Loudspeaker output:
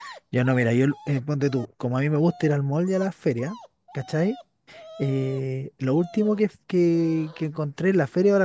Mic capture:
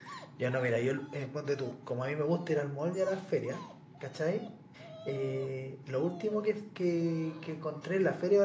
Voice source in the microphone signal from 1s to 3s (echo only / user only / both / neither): echo only